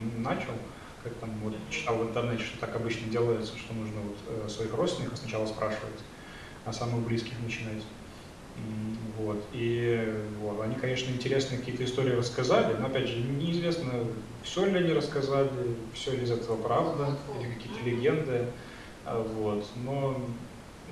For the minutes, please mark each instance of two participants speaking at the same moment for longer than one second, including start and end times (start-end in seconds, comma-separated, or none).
16.8-18.1